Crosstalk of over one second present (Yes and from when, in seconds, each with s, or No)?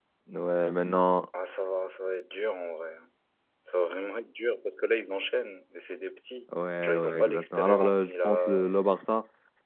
Yes, from 6.8 s